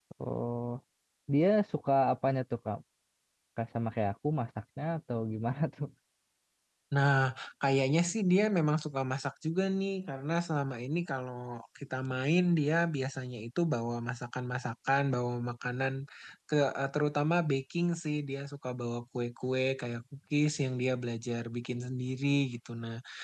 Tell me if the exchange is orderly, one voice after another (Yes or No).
Yes